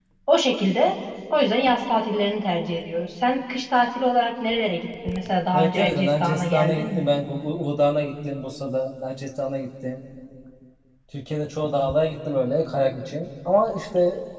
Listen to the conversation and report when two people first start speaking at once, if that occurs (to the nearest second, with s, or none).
6 s